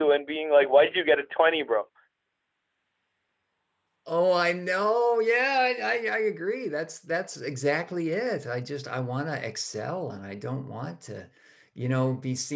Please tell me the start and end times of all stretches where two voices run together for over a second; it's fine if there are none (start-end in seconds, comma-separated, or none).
none